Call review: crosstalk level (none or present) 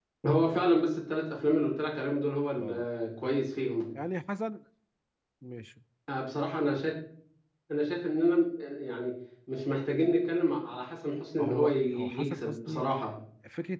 present